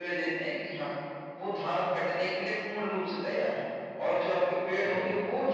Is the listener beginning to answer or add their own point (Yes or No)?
No